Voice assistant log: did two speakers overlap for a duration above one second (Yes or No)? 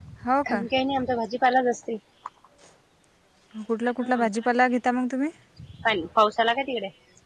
No